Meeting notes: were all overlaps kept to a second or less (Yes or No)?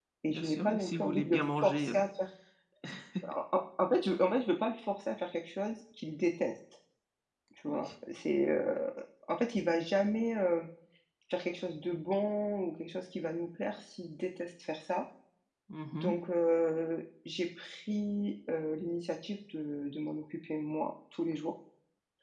No